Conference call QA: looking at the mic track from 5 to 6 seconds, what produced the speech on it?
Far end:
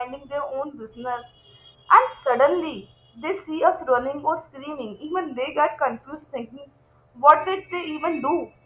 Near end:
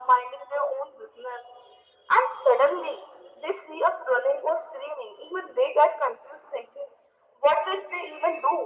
echo only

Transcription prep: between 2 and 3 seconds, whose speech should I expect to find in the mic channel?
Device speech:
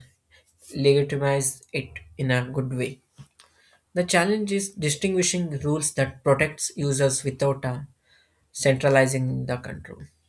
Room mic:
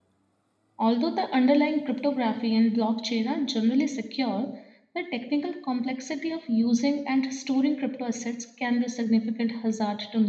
user only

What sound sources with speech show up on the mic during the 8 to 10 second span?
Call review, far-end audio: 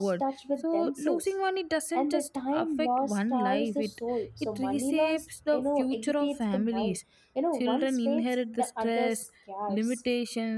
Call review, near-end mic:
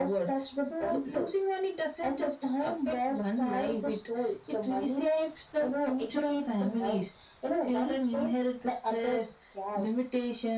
echo only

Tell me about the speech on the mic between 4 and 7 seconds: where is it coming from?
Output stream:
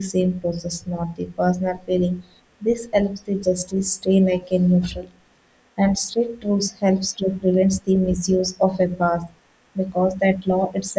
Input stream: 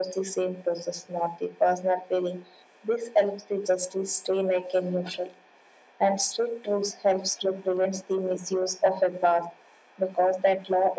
echo only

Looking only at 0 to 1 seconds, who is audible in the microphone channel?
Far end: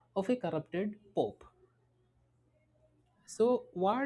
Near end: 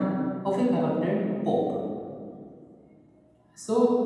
echo only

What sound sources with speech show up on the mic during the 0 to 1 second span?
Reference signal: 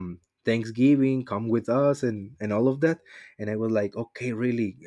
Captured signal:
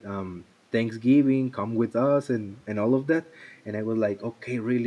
echo only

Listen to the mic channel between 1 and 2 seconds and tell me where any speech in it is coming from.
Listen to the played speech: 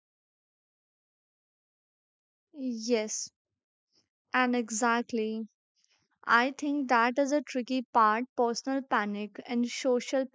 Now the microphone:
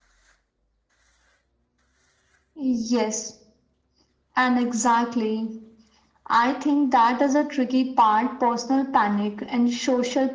neither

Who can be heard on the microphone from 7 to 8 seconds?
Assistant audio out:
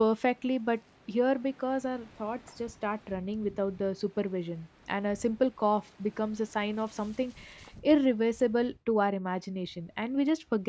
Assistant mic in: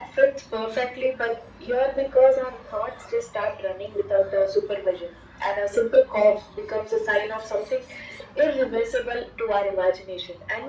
echo only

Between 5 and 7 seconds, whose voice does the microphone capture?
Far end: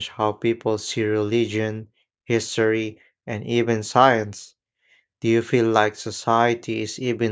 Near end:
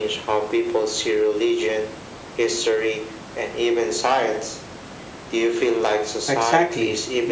both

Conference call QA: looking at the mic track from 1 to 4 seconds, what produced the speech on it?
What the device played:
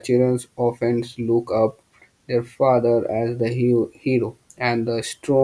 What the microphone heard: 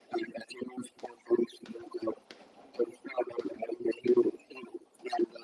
echo only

